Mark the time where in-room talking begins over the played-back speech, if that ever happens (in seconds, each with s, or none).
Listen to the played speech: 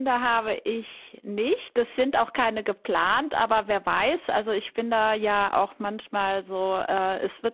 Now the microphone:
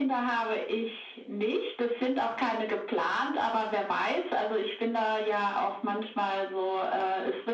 none